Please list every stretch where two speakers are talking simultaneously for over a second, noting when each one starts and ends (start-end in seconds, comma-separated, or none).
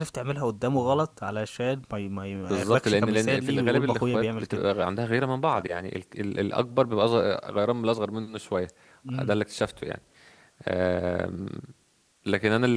2.5-4.6